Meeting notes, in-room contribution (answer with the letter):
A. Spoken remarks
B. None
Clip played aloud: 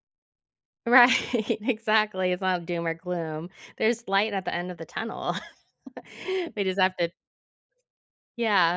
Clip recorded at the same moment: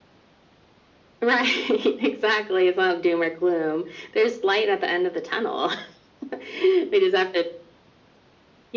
B